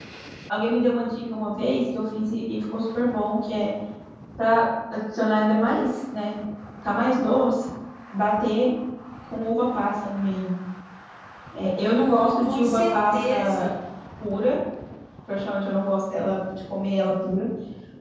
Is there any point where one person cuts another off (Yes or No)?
Yes